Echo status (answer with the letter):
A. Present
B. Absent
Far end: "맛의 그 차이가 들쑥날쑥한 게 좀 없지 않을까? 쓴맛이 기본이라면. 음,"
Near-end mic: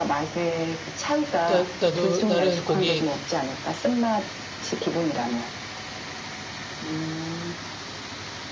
A